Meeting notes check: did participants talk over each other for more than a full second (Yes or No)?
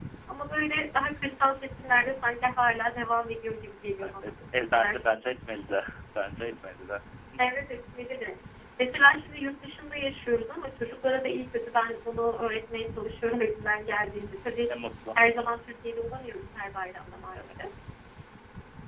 No